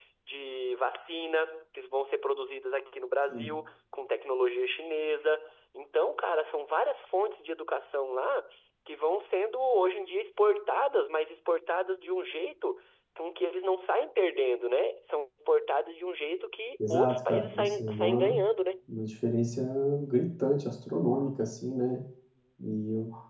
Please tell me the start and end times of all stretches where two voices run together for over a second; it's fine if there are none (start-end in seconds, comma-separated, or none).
16.9-18.4